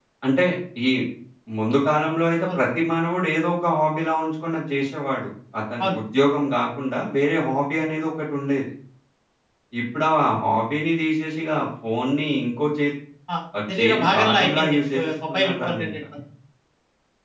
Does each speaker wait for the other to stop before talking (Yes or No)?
No